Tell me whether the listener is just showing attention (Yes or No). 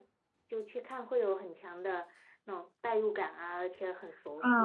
No